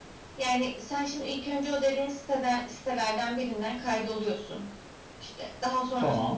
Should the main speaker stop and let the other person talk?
No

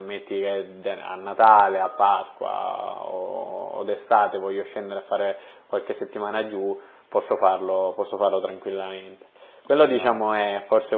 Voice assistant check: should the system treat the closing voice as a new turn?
No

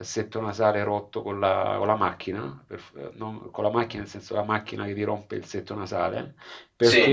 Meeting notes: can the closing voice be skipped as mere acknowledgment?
Yes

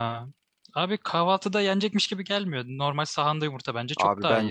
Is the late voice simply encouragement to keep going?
No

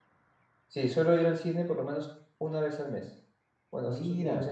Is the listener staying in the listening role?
Yes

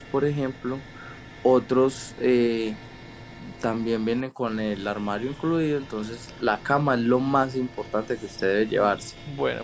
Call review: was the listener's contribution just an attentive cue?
No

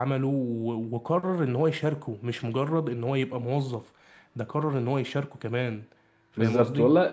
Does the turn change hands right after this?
Yes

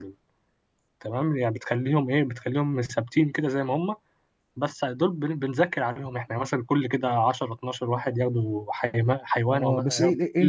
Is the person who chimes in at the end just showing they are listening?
No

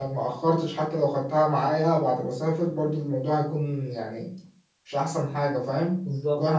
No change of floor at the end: No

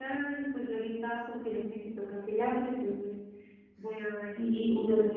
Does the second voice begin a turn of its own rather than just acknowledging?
Yes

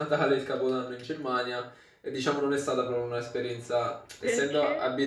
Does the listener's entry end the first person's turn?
No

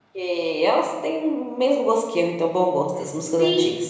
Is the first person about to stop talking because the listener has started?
Yes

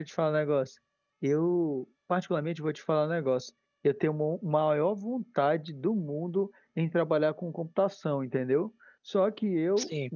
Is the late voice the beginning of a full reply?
No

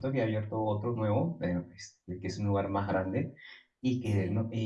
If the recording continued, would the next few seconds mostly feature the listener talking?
No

